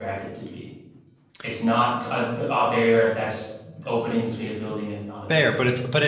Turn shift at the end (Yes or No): Yes